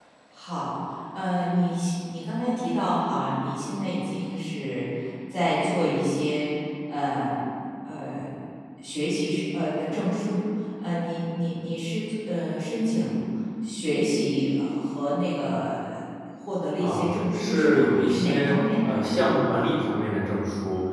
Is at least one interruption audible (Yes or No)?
Yes